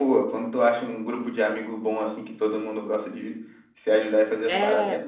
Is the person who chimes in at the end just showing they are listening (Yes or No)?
No